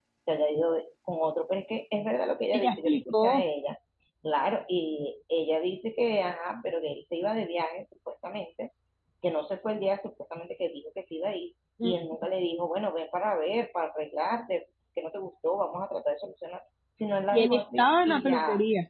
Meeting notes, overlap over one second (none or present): present